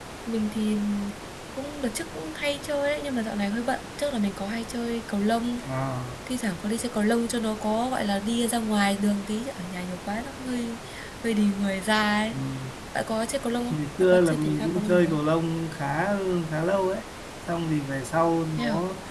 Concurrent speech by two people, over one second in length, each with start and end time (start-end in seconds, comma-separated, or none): 13.7-15.2